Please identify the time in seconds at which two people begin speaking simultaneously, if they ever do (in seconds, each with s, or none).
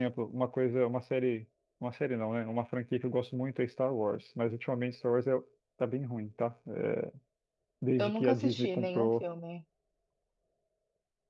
8.0 s